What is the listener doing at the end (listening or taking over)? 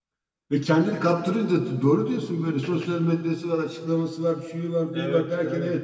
listening